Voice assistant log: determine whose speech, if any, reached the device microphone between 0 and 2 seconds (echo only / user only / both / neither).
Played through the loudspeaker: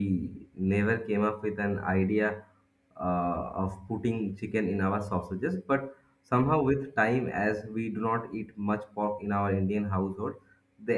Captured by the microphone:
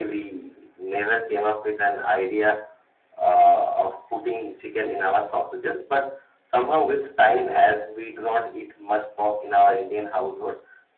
echo only